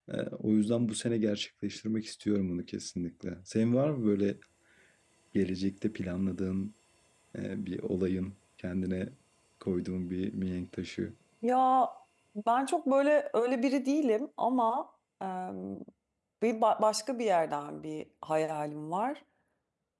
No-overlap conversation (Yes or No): Yes